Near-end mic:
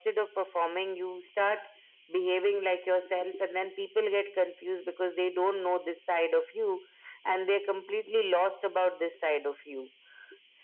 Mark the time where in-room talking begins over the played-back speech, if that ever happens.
none

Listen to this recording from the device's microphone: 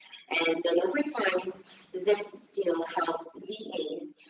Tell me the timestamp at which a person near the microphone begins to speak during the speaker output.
none

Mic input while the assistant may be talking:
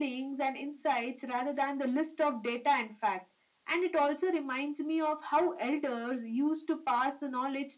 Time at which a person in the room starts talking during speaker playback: none

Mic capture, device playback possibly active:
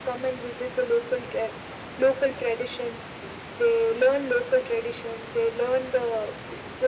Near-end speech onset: none

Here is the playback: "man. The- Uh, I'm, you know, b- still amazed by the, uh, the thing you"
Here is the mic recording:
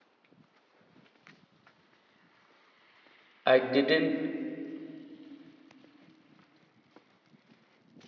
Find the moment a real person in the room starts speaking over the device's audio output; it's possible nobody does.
3.5 s

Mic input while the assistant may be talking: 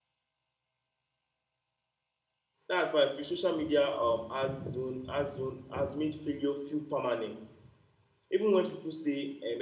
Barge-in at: 2.7 s

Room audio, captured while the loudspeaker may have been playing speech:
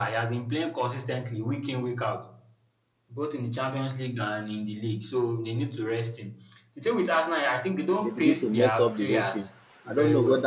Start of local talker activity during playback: 8.0 s

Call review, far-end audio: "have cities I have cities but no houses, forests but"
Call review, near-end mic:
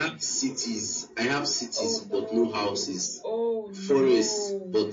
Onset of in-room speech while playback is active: 1.7 s

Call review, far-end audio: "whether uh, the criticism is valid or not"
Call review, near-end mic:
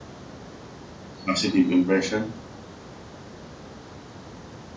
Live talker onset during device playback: 1.2 s

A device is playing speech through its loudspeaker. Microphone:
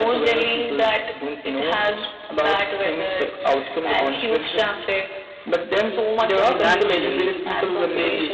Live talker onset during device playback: 6.4 s

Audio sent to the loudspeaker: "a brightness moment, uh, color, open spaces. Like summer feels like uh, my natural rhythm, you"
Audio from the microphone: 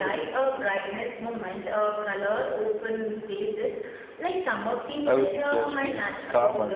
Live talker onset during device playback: 5.1 s

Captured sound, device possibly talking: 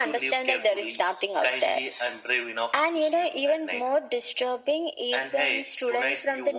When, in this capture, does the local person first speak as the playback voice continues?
none

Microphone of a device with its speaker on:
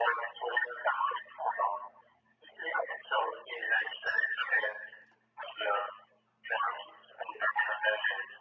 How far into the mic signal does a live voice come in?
none

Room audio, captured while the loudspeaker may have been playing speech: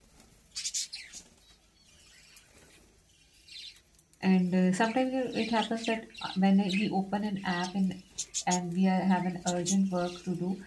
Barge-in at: 4.2 s

